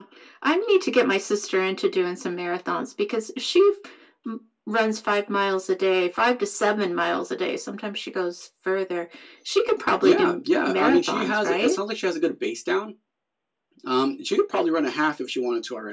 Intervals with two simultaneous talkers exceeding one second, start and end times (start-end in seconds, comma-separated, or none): 10.0-11.8